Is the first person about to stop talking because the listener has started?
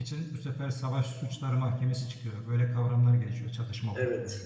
No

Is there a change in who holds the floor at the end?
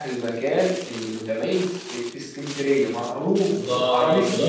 Yes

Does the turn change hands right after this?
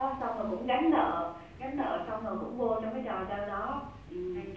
No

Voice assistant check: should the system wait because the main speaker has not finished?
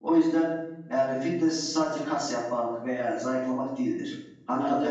Yes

